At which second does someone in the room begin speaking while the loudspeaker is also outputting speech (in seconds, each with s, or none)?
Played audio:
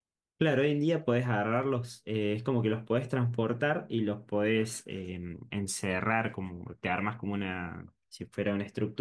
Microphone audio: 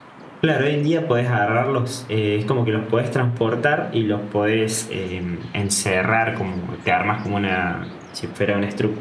none